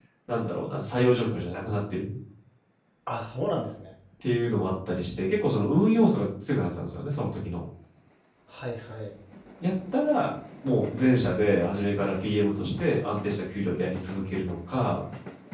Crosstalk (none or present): none